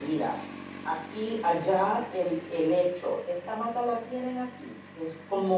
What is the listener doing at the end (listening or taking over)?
listening